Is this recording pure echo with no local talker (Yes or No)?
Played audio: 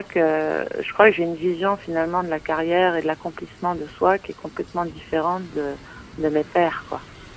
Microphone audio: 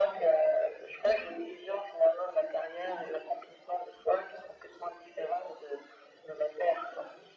Yes